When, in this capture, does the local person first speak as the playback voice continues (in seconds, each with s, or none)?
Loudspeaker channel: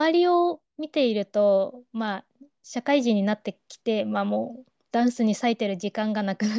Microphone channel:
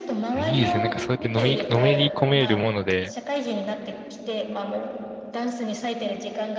0.3 s